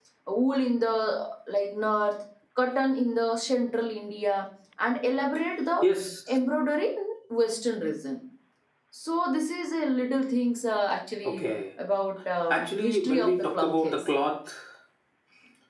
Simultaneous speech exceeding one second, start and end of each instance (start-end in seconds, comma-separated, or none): 12.5-14.0